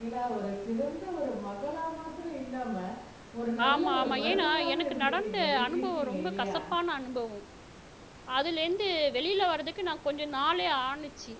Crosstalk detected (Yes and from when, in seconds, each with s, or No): Yes, from 3.7 s